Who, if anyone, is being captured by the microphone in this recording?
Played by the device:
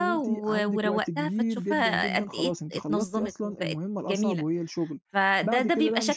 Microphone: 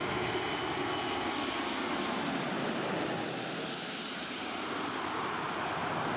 neither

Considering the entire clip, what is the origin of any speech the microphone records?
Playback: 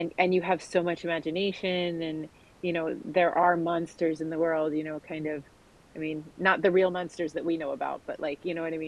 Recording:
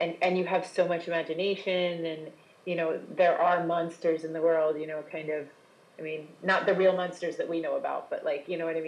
echo only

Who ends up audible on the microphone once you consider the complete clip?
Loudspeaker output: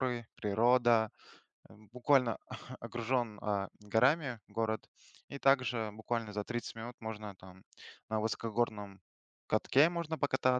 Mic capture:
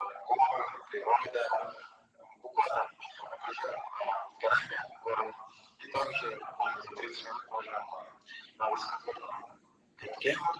echo only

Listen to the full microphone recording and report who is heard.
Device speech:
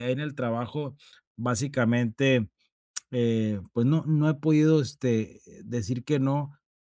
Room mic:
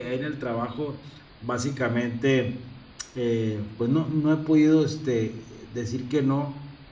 echo only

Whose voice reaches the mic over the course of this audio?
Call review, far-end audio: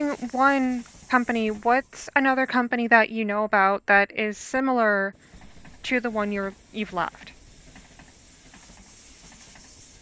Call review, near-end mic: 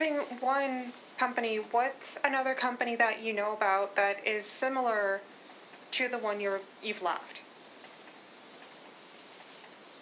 echo only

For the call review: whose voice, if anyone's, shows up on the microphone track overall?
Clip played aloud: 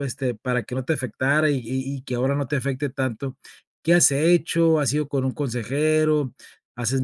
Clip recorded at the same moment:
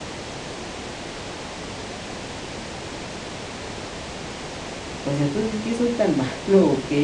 user only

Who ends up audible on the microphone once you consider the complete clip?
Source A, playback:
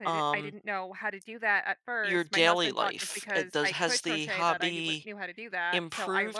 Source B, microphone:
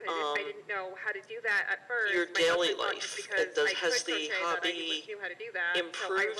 echo only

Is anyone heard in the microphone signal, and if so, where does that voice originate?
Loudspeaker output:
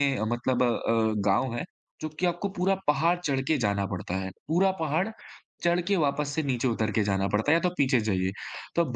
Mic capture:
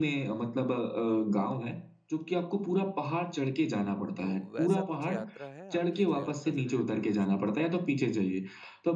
both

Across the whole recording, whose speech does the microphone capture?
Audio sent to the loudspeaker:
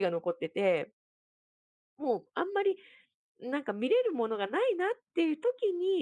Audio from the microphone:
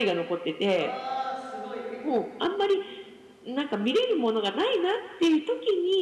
both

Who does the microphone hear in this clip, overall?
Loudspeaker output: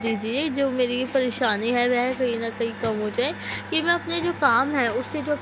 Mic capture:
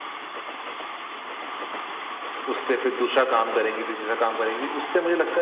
user only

